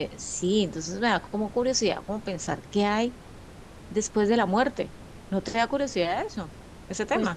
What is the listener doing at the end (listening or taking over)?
taking over